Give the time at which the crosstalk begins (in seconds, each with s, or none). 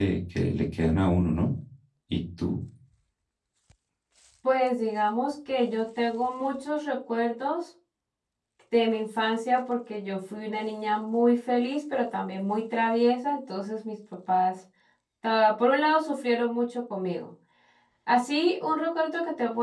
none